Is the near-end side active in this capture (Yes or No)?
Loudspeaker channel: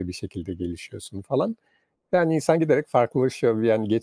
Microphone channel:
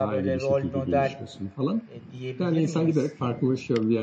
Yes